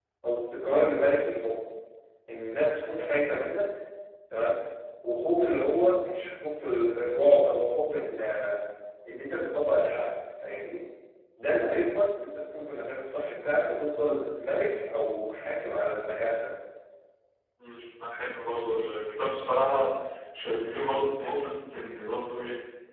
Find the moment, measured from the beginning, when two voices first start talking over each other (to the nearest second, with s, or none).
none